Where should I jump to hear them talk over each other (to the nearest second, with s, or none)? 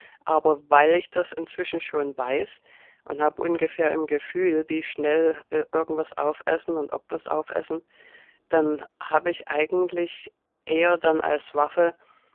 none